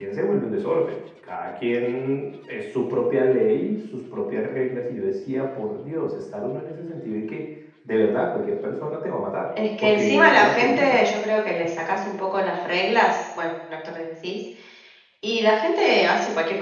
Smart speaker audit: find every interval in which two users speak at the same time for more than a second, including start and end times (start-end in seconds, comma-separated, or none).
9.8-11.0